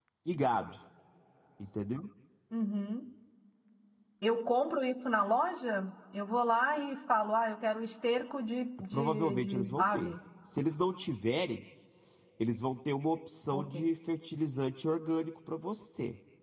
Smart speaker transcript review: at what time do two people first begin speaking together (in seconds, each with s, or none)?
8.9 s